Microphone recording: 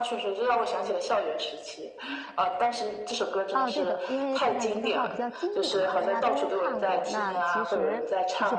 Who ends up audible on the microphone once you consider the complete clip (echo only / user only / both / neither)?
both